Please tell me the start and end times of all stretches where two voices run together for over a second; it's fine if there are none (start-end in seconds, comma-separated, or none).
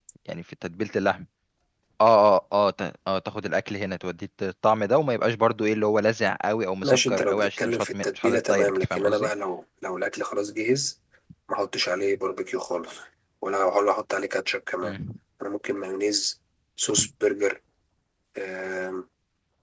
6.8-9.3